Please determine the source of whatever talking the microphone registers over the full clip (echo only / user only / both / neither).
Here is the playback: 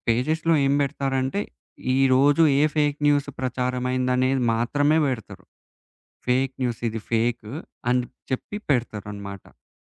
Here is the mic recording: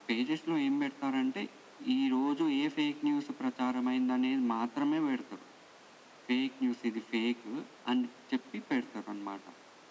echo only